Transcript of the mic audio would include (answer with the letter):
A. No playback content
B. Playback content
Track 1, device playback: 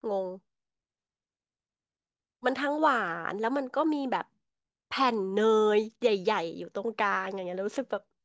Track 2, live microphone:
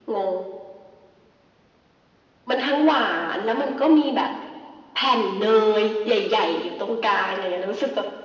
B